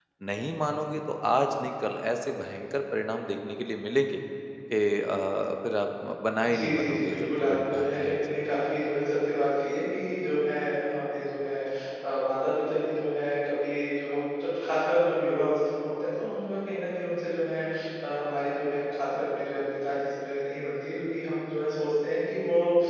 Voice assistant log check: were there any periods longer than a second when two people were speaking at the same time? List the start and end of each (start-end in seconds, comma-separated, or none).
6.4-8.3